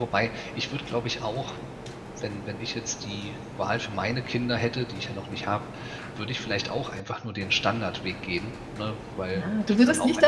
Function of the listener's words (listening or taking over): taking over